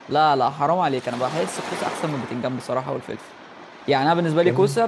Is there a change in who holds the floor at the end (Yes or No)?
No